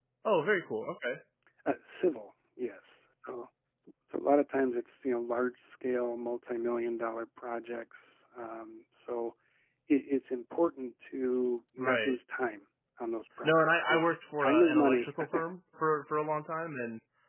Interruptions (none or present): present